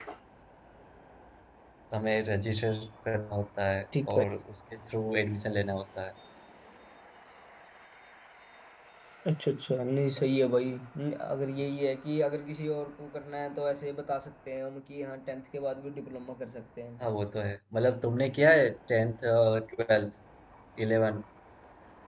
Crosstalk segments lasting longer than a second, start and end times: none

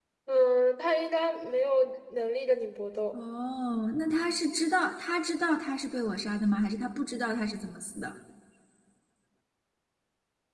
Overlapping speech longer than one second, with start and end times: none

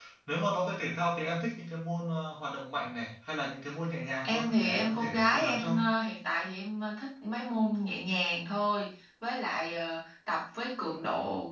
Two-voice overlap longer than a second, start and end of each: 4.2-5.7

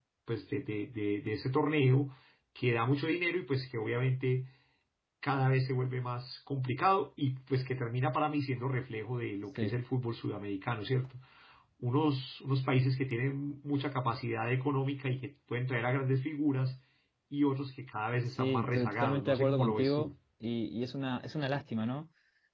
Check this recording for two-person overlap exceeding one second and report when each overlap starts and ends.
18.4-20.1

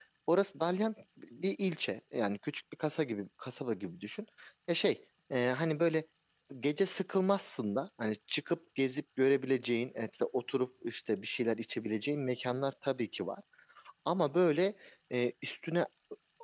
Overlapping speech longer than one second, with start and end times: none

